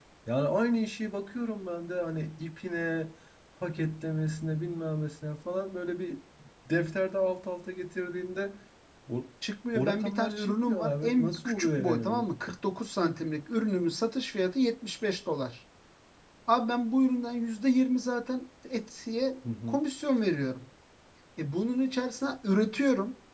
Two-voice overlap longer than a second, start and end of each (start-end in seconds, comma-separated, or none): 9.7-12.2